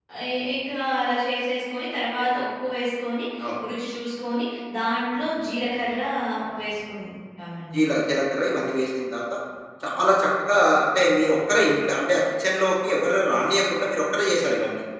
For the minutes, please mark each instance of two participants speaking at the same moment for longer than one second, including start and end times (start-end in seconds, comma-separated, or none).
none